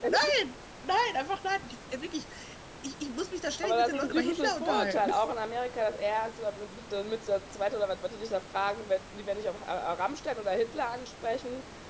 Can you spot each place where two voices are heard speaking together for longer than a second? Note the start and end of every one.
3.6-5.1

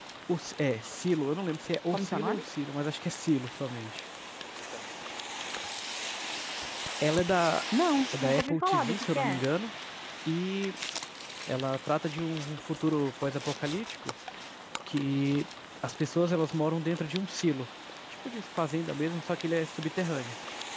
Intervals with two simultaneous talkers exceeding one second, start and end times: 8.2-9.4

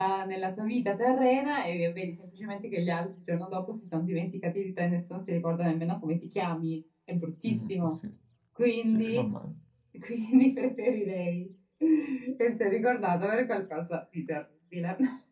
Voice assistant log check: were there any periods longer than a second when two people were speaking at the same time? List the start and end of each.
none

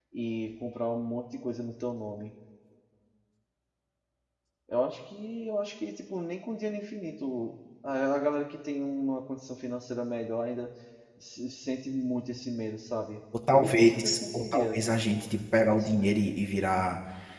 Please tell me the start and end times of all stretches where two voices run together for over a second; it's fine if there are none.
13.5-14.8

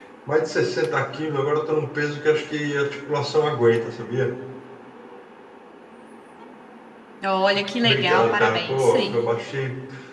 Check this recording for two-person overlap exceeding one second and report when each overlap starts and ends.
7.8-9.1

